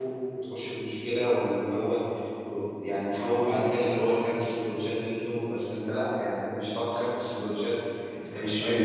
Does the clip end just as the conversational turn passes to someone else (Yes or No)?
No